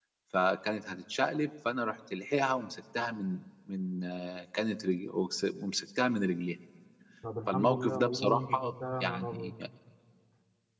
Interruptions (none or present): present